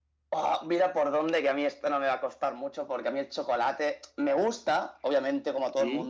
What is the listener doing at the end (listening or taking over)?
listening